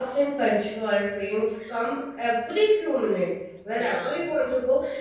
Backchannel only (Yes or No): Yes